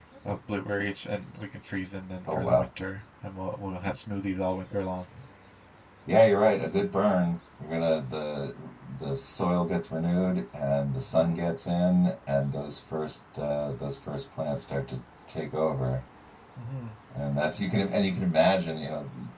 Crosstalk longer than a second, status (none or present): none